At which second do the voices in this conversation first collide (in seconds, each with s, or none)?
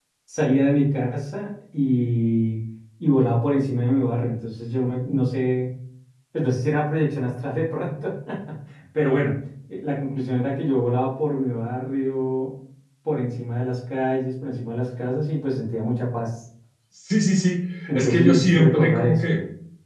17.9 s